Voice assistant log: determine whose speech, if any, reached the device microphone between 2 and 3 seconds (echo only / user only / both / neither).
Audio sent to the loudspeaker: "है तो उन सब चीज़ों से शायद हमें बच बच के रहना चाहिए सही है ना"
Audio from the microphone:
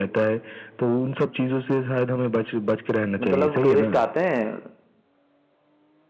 echo only